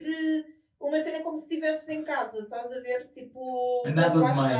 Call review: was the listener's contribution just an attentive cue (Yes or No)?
No